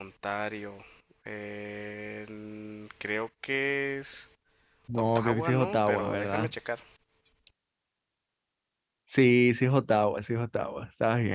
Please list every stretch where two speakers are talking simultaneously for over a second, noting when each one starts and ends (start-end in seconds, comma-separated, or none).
4.9-6.5